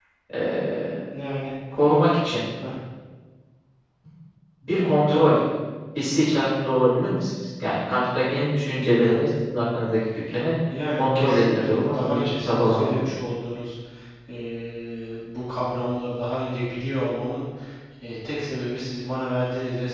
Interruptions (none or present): present